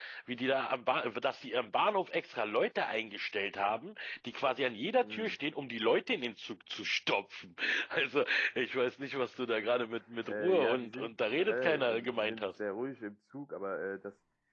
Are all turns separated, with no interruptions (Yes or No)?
No